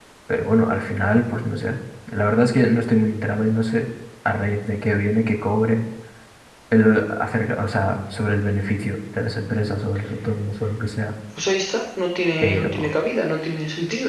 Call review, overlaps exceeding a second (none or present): none